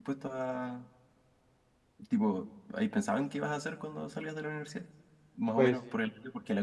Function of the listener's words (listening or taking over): listening